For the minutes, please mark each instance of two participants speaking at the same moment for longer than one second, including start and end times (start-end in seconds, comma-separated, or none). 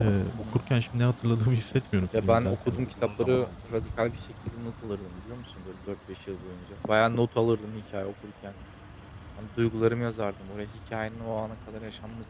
2.2-3.5